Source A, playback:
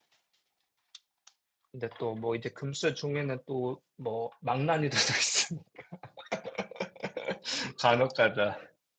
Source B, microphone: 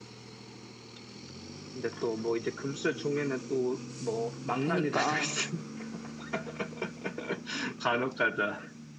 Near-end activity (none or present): present